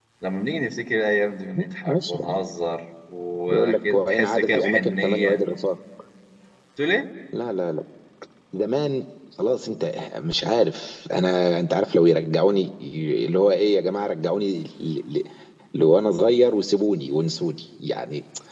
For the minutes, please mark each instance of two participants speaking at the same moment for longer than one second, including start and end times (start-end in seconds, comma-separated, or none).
3.5-5.4